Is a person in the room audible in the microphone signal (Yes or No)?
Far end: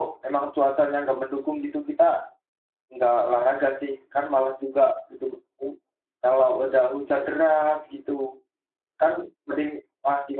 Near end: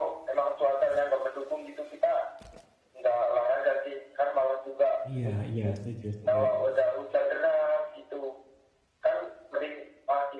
Yes